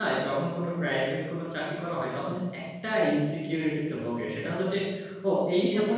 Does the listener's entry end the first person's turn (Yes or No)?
No